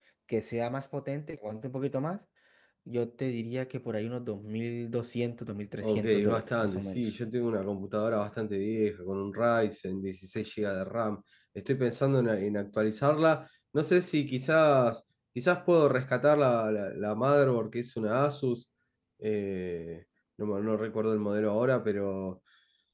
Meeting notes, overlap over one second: present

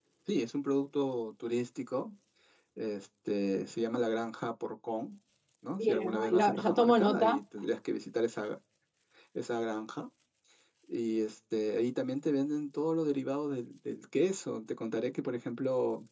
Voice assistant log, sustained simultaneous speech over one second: present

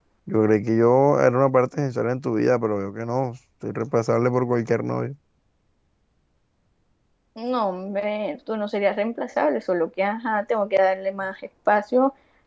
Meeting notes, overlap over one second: none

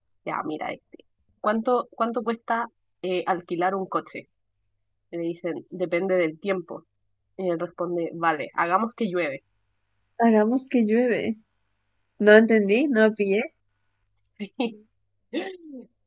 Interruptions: none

